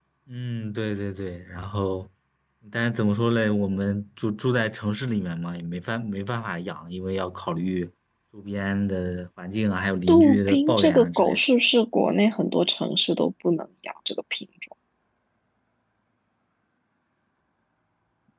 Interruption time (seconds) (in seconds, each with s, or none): 10.1 s